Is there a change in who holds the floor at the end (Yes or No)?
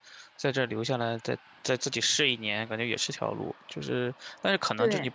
No